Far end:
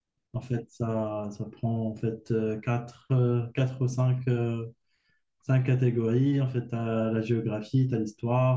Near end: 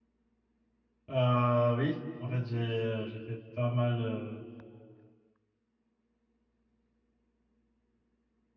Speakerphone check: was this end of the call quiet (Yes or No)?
No